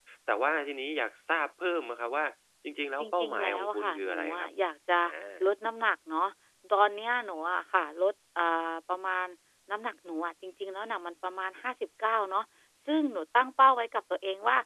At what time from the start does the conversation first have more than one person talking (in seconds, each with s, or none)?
3.0 s